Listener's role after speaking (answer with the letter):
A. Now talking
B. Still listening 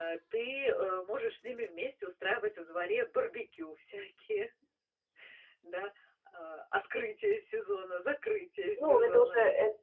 A